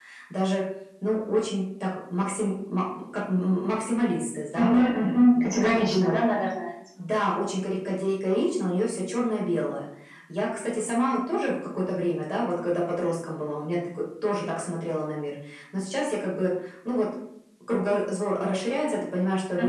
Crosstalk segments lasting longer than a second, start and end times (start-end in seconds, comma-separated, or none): 4.5-6.1